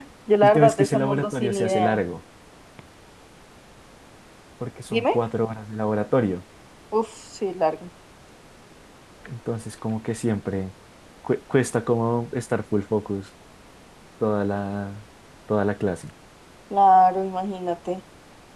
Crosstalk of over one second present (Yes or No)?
Yes